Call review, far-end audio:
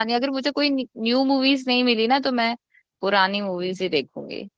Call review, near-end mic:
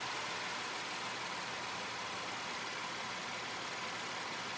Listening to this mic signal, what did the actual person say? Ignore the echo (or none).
none